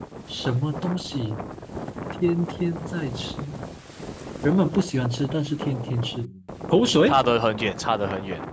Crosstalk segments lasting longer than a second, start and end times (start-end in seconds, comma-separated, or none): none